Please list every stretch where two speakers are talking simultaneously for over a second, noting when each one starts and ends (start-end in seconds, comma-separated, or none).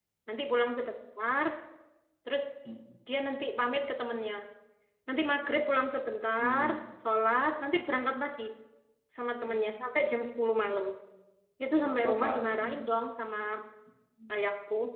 11.8-13.0